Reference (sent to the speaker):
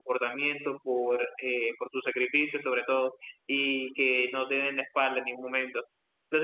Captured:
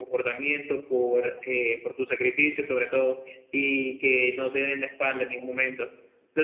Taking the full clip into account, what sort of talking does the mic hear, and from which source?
echo only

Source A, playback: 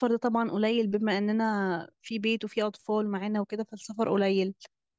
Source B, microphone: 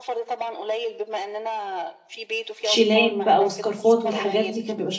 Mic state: both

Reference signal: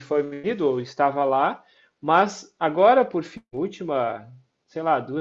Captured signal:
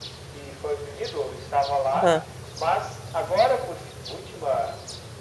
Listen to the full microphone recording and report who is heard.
both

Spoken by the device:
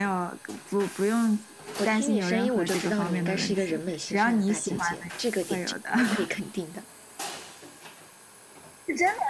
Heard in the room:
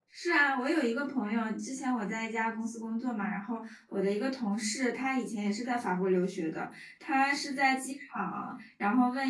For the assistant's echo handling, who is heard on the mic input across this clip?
user only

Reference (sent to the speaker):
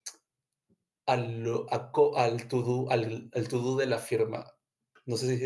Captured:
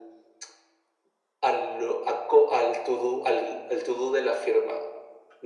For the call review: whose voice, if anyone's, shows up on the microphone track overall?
echo only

